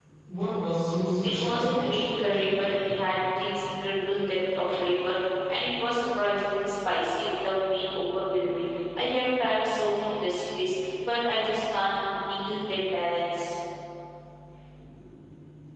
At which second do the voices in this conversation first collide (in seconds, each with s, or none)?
1.4 s